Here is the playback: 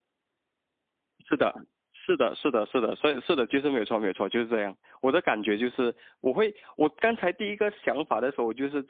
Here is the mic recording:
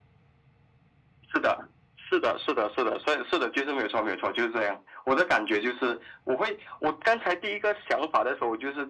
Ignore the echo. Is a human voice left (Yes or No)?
No